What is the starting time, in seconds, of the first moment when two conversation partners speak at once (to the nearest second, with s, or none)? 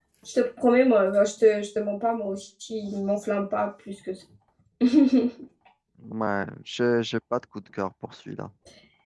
none